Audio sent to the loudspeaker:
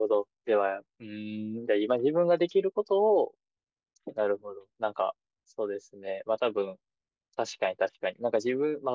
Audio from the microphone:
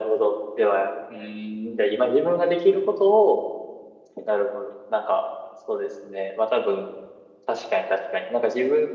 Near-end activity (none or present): none